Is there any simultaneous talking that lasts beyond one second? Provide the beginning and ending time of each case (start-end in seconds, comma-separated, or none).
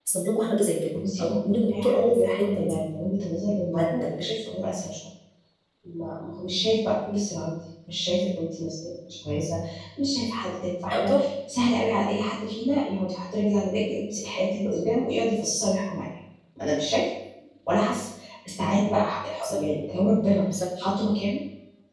1.2-2.8